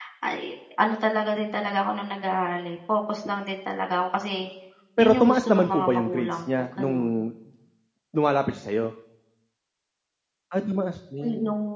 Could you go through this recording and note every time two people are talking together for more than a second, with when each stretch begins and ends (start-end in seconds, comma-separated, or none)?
5.0-7.2